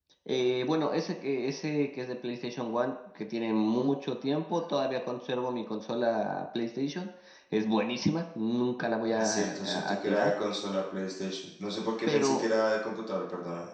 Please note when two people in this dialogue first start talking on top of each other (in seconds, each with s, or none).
9.1 s